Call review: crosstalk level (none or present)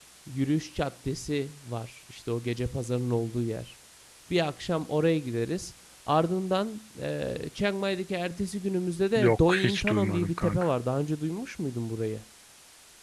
present